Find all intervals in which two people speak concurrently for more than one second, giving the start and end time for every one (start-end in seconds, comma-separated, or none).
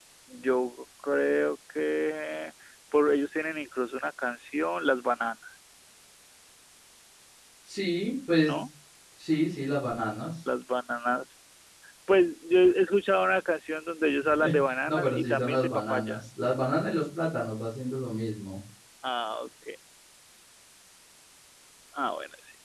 14.9-16.2